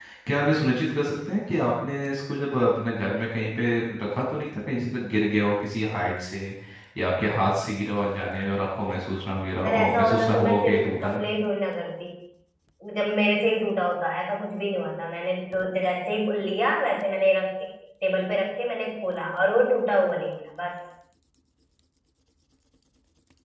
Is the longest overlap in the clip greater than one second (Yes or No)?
Yes